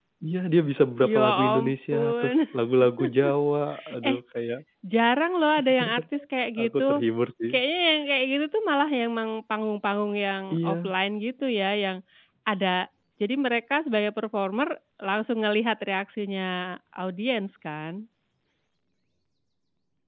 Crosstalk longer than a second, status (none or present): present